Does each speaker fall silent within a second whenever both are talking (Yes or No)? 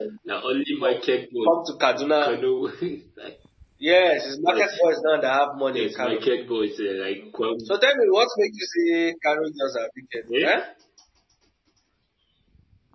Yes